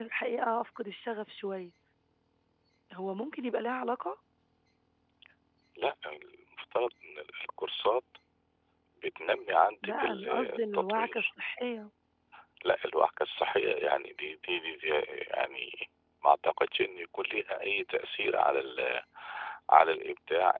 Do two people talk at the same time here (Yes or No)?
Yes